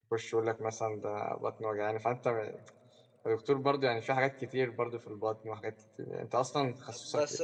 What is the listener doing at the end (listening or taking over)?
taking over